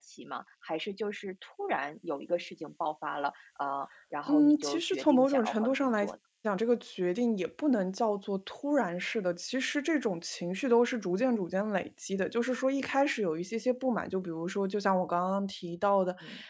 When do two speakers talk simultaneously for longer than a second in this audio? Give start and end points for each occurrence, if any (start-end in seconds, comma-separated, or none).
4.3-6.1